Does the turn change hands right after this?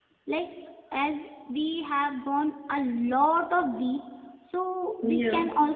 No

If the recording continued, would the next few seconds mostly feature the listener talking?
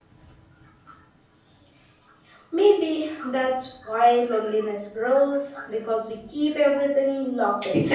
Yes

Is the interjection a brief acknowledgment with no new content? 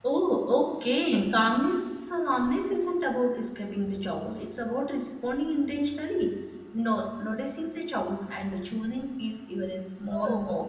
No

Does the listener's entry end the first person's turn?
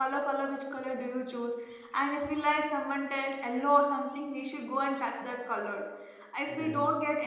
No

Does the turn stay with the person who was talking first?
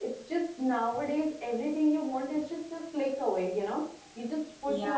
Yes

